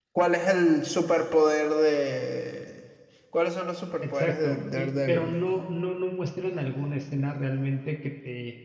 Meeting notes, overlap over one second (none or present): present